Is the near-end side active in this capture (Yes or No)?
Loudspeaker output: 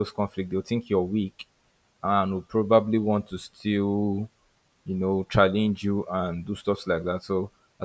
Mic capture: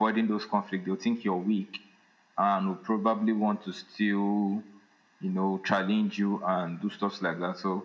No